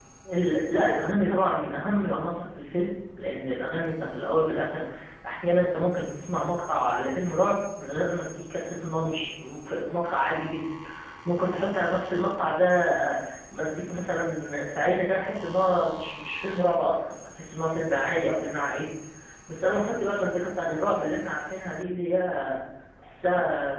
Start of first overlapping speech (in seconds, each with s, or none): none